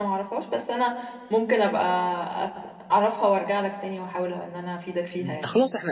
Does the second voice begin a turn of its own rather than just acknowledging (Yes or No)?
Yes